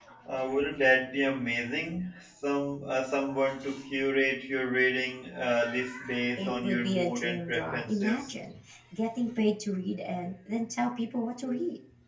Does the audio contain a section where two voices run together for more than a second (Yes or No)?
Yes